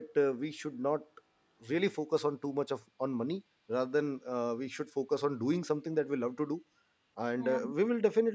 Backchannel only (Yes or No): Yes